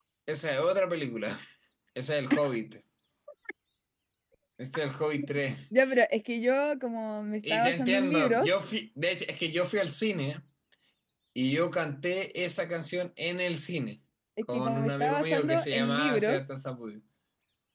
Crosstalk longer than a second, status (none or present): present